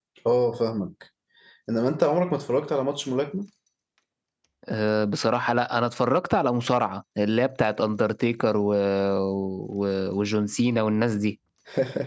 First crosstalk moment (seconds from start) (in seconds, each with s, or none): none